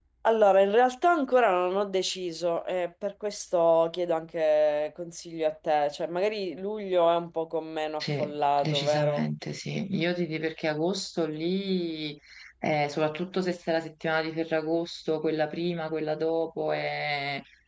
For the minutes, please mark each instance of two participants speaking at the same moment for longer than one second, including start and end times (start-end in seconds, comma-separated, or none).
8.0-9.2